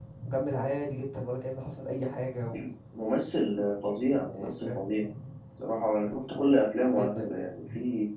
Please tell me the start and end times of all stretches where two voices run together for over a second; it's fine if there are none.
none

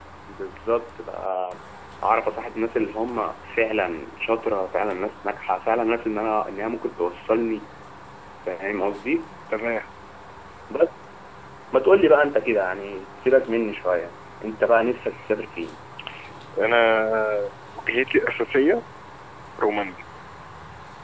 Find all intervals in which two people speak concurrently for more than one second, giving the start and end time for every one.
none

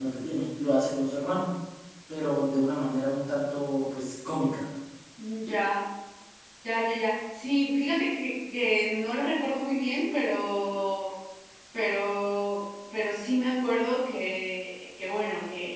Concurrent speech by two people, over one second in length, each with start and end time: none

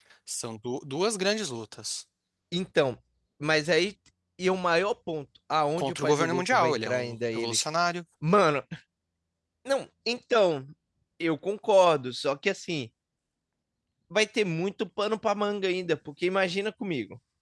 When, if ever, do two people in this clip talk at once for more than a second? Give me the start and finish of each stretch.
5.8-7.6

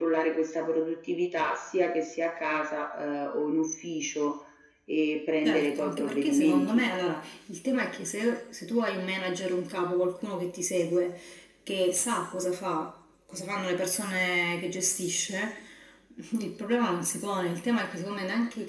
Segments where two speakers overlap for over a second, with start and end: 5.4-6.9

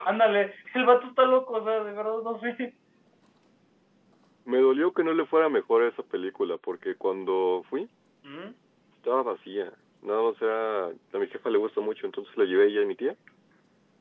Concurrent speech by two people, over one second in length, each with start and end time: none

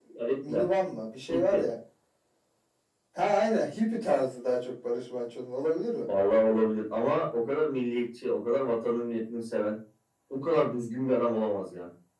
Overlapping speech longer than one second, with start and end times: none

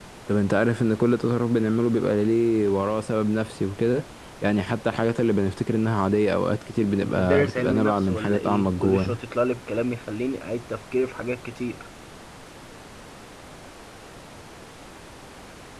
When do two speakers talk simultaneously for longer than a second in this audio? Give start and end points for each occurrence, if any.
7.0-9.2

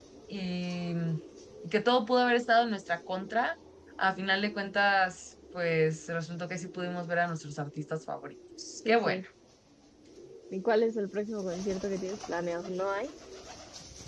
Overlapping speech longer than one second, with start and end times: none

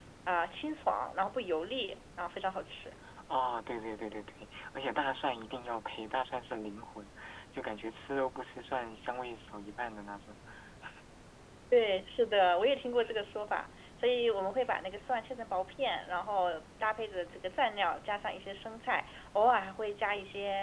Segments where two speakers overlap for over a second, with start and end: none

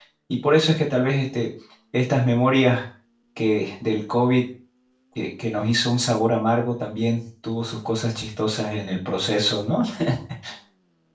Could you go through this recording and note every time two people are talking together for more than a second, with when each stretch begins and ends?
none

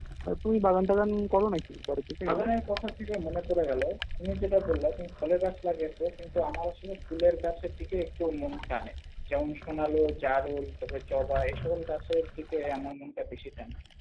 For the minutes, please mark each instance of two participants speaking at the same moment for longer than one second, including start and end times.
none

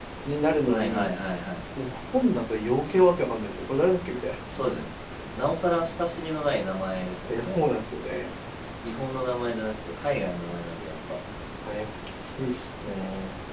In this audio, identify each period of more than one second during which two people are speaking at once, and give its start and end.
none

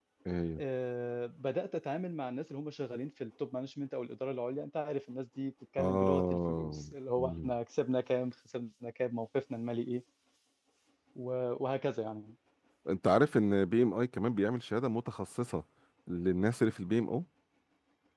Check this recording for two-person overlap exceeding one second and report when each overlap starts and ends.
5.8-7.5

